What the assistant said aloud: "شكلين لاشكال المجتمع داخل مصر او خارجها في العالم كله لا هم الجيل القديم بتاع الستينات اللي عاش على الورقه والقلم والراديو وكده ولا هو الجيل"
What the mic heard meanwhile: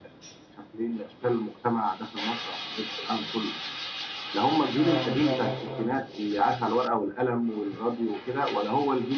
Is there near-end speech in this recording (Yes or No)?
Yes